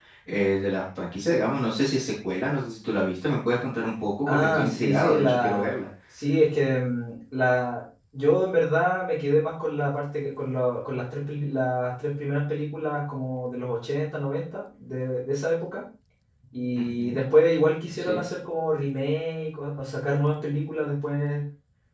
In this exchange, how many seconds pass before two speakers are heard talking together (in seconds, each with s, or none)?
4.3 s